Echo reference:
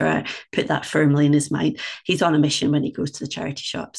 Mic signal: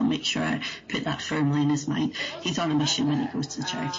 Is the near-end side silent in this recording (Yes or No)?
No